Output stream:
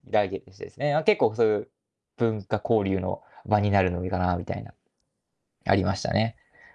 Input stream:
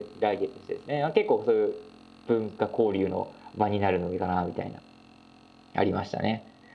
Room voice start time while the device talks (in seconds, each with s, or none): none